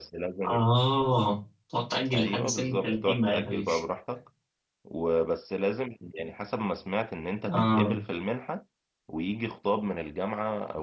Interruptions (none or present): present